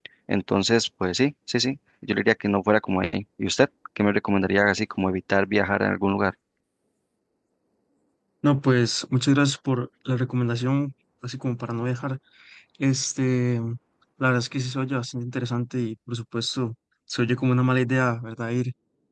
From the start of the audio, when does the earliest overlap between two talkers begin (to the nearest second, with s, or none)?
none